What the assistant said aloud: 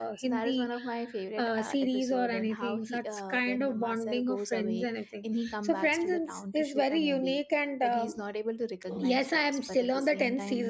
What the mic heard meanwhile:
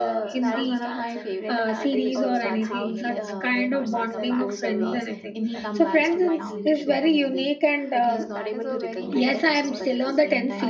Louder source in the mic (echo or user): echo